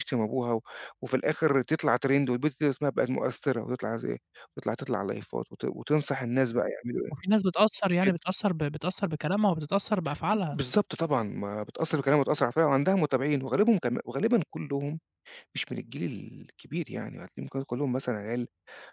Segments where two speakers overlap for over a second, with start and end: none

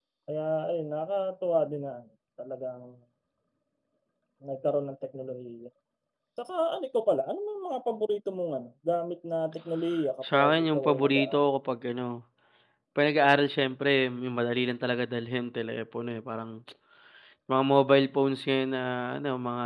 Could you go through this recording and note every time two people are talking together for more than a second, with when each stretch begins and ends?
10.2-11.5

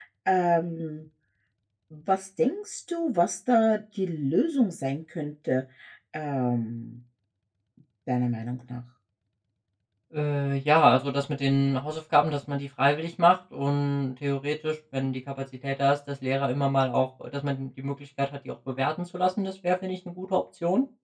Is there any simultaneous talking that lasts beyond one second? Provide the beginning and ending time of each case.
none

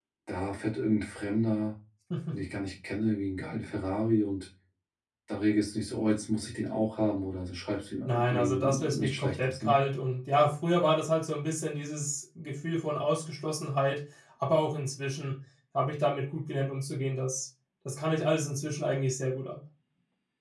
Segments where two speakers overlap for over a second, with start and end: 8.1-9.7

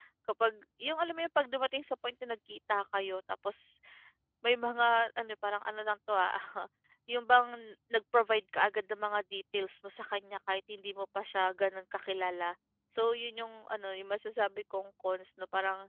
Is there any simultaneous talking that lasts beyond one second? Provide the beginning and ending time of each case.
none

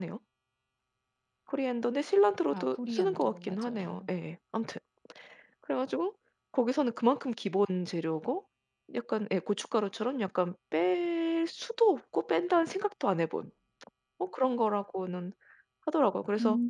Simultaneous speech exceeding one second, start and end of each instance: 2.5-4.1

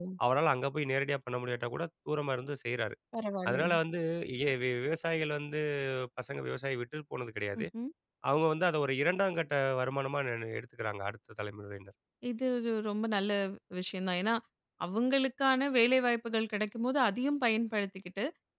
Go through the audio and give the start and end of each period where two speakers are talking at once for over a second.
none

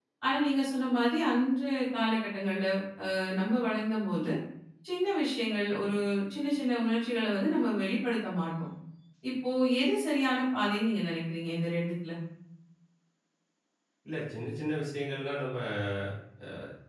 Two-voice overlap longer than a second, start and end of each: none

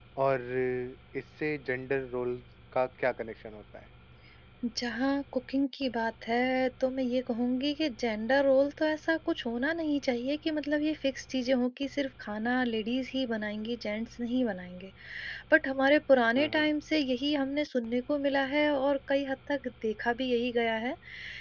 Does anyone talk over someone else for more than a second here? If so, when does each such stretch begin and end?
none

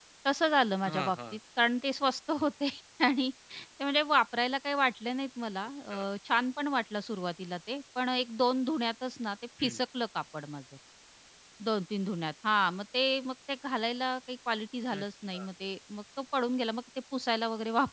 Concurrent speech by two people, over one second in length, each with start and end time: none

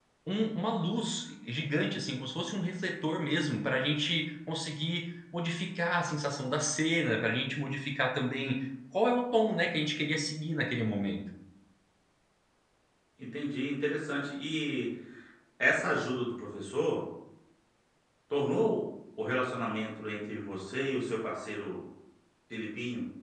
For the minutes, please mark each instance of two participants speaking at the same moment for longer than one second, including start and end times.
none

